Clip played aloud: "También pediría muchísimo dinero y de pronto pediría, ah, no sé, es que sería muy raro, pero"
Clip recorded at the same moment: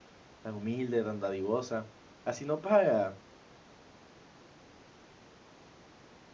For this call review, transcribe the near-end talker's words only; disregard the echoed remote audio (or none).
tan humilde, tan dadivosa. Así no paga.